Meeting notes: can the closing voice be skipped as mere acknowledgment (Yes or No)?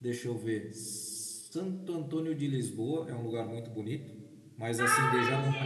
No